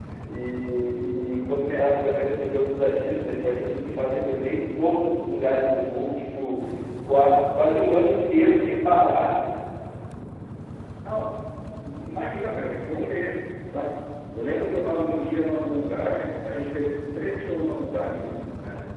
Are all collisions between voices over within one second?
Yes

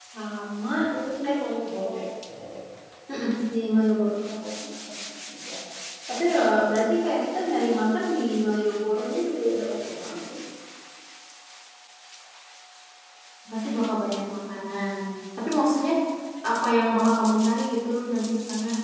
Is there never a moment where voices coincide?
Yes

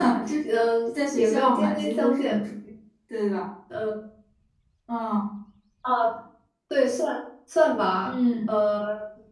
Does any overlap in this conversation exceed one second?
Yes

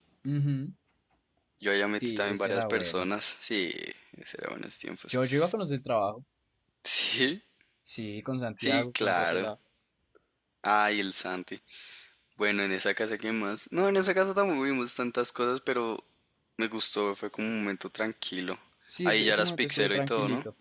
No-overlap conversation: No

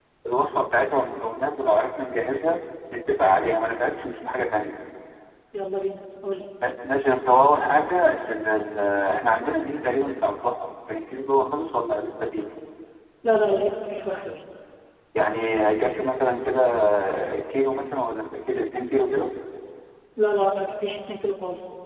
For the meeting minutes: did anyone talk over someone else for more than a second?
No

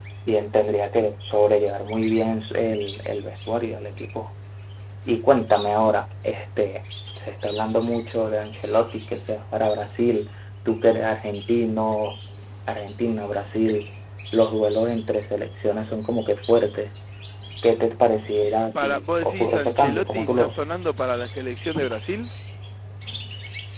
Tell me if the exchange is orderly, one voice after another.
No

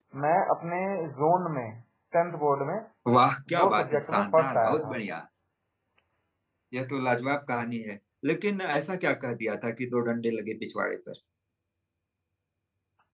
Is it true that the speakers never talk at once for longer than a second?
No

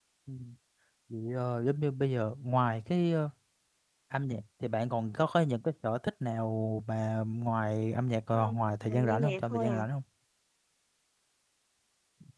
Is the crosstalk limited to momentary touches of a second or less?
No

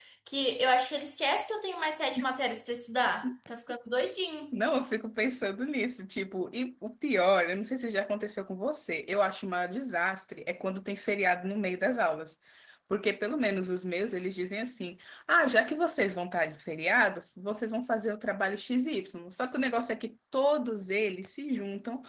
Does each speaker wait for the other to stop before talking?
Yes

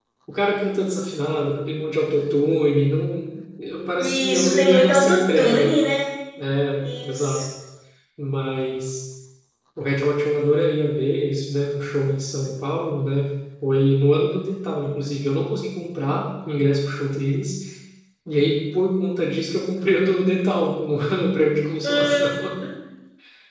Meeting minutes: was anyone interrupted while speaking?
Yes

